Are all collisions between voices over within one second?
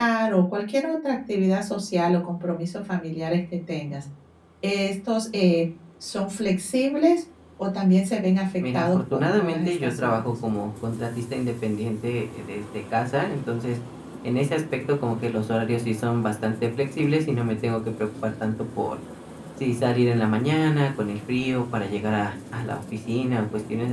No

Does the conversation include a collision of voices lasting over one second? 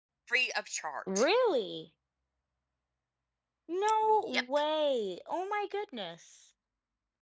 No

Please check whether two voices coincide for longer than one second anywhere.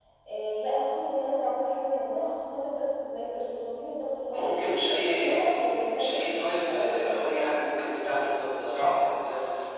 Yes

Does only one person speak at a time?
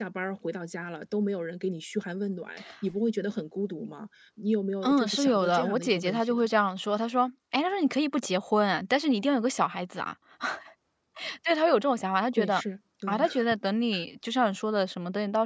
No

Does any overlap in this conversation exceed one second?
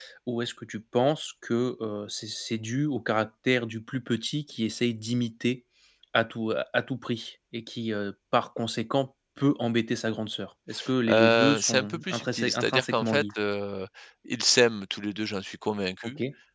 Yes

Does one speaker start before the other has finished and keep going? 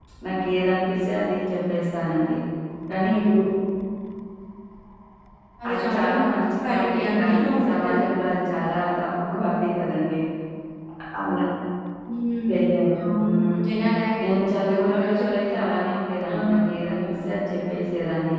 Yes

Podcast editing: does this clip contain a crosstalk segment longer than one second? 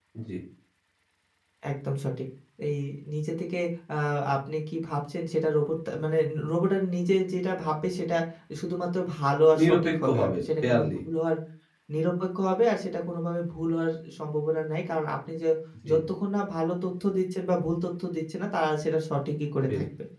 Yes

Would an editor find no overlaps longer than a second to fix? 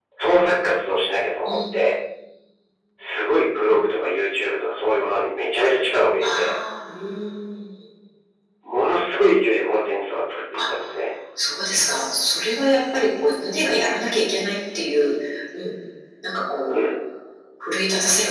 Yes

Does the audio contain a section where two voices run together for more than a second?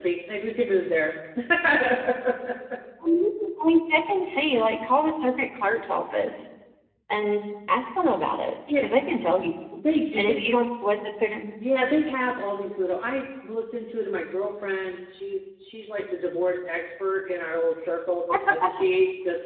No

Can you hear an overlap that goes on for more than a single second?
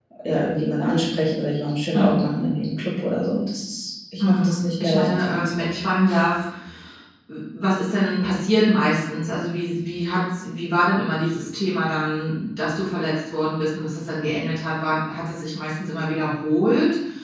Yes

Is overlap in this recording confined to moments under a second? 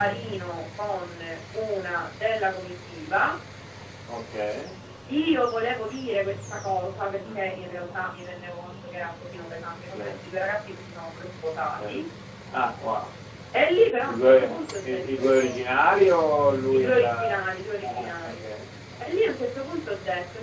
No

